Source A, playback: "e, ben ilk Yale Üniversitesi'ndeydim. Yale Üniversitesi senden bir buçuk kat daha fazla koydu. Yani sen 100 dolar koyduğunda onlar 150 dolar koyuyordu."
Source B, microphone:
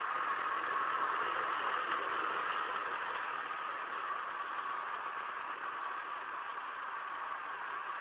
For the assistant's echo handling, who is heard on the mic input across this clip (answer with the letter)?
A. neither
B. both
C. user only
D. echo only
A